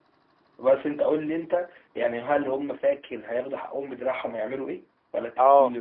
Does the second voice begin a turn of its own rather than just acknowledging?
Yes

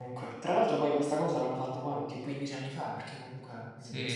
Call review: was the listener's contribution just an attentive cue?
No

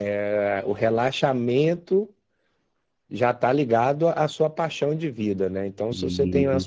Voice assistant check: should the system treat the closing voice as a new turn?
No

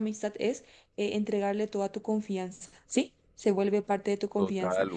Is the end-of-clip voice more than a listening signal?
Yes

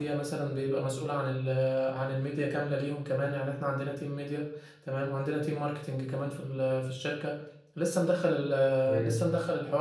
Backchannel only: Yes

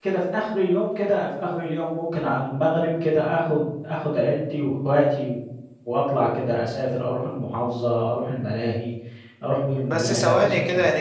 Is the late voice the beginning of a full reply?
Yes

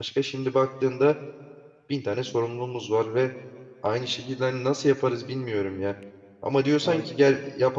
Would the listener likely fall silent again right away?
Yes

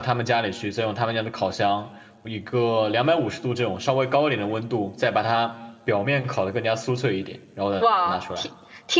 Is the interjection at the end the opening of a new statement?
Yes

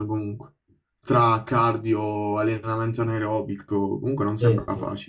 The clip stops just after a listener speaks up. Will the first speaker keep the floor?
No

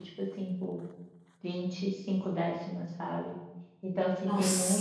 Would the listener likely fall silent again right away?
Yes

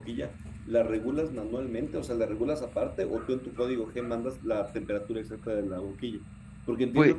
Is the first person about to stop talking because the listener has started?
No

